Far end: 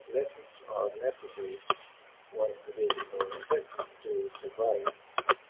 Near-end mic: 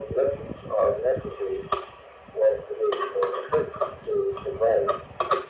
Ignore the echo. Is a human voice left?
No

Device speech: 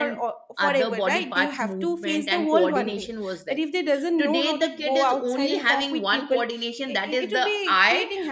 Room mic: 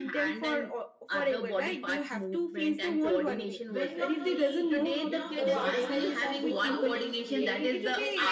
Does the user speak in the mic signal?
Yes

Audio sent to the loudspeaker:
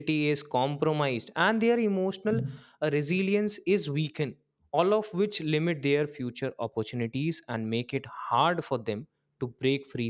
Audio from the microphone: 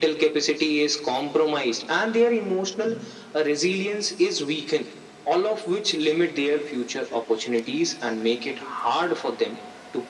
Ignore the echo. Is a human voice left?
No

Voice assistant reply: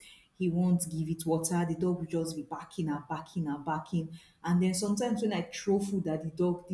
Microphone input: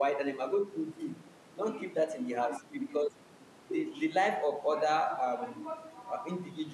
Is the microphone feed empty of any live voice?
No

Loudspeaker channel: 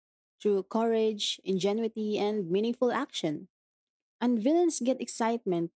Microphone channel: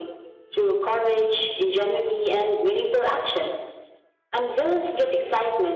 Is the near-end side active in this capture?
No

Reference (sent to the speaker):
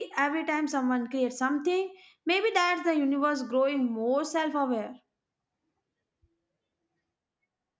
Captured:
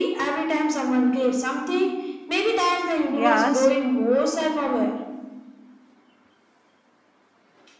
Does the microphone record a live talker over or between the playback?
Yes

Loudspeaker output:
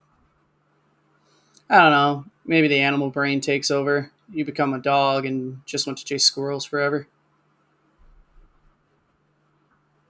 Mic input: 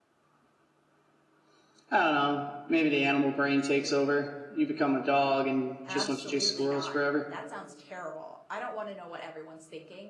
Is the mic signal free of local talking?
No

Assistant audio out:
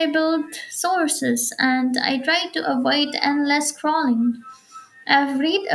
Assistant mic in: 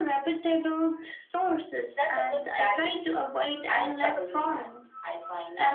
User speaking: Yes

